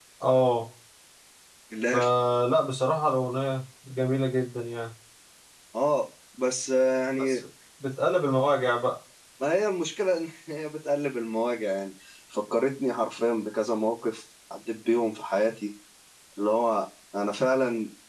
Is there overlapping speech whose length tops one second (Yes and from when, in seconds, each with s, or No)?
No